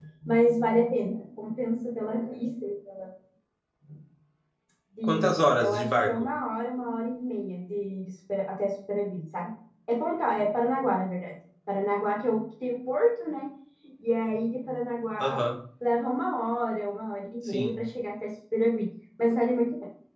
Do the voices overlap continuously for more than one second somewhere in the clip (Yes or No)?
Yes